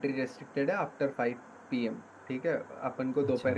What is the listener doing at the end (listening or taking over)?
listening